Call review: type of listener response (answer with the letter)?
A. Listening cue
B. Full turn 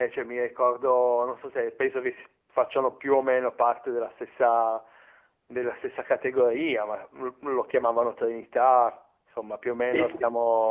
B